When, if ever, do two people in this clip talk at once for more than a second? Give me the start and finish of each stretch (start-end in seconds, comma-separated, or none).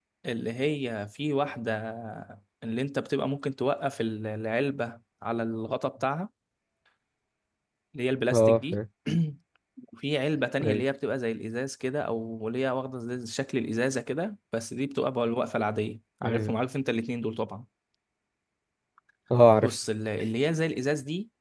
none